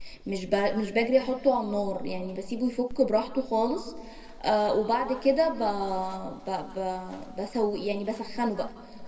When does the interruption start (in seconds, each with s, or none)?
none